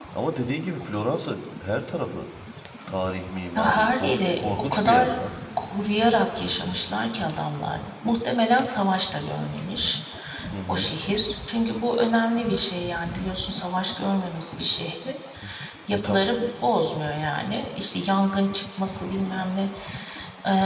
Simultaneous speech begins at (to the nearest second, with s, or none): 4 s